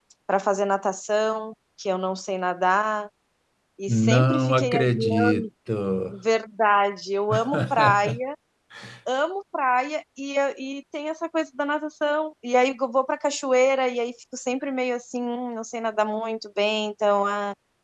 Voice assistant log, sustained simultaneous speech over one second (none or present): present